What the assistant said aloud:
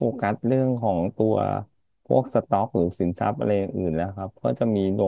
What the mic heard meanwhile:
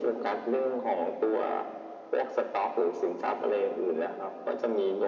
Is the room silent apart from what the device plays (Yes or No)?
Yes